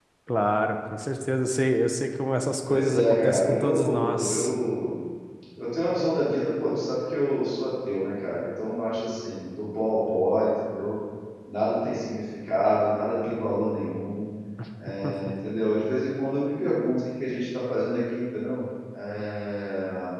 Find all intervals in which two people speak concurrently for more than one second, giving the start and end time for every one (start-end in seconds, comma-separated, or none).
2.7-4.5